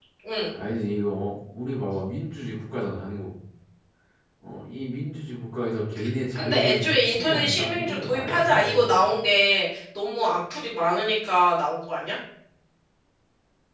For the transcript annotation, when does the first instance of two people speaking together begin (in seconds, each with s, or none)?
6.3 s